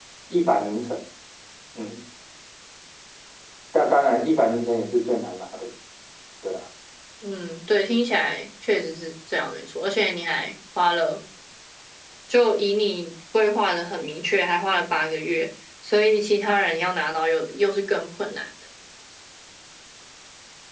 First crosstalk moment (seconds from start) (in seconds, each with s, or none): none